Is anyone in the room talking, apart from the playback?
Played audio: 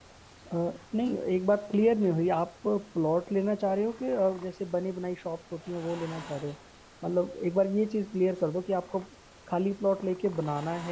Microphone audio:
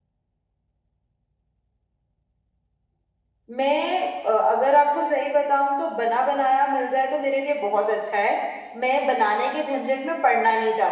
Yes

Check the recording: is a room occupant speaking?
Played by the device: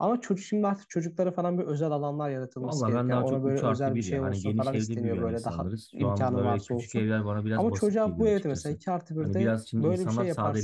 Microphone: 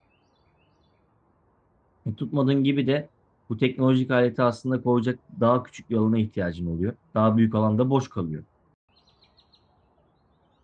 Yes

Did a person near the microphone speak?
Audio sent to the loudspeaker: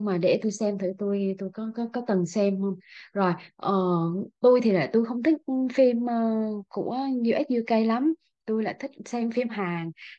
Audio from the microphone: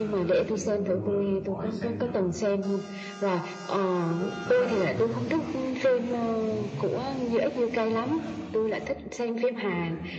Yes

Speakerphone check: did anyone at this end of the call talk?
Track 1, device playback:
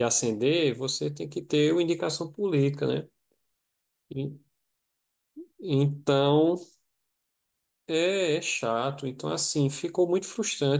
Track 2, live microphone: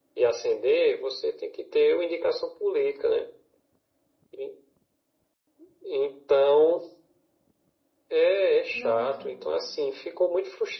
Yes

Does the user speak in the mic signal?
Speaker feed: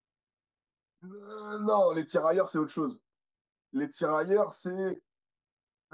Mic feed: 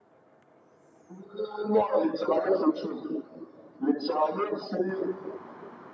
No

